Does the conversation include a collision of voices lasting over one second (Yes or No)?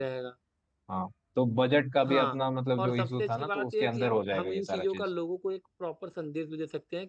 Yes